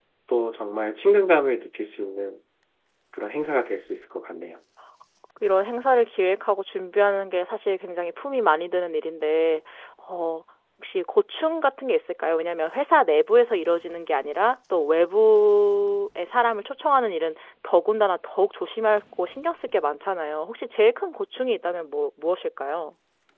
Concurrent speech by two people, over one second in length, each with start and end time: none

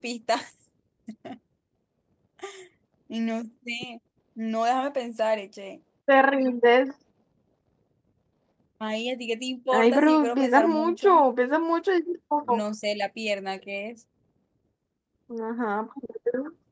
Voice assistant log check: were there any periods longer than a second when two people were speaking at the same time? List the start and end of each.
9.7-11.2

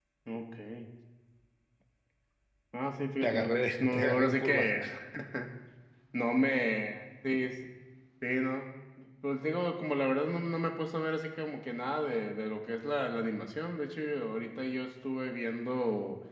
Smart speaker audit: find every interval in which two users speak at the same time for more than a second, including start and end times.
3.2-4.7

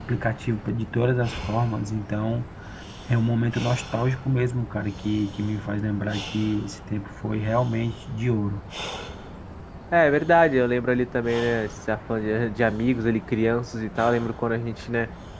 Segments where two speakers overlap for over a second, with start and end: none

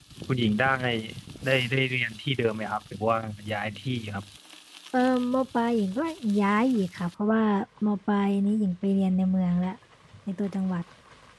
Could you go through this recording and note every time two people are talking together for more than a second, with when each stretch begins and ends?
none

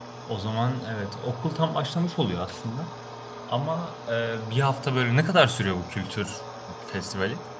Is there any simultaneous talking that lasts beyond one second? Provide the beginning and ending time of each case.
none

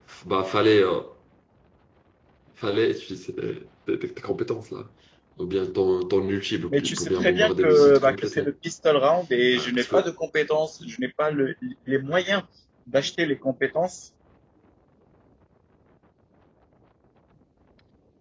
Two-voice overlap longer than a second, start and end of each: 6.7-8.5

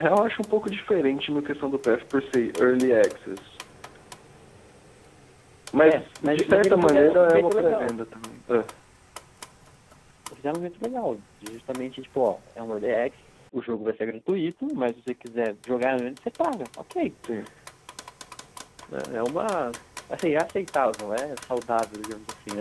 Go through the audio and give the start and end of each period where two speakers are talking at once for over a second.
5.8-8.0

